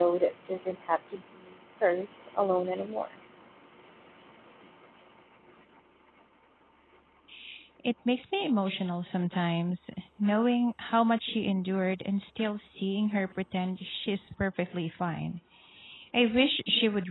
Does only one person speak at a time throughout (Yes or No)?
Yes